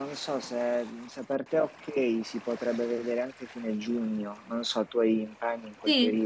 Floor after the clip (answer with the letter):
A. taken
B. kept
A